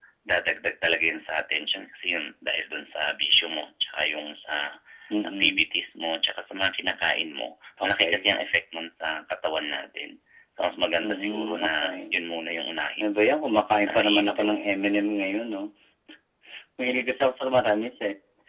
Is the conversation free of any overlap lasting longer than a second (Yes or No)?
No